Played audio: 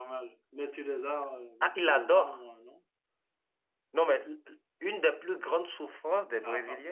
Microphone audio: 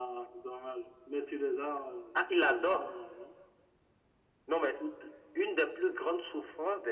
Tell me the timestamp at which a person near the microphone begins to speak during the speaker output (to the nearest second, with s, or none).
none